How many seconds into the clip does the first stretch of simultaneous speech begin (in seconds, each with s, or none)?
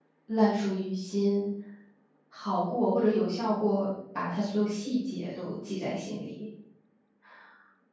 none